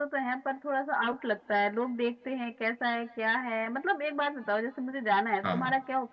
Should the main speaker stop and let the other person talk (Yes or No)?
No